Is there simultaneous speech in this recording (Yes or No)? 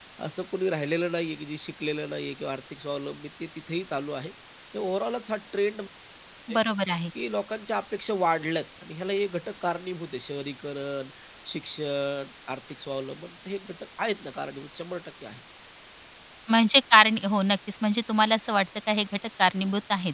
No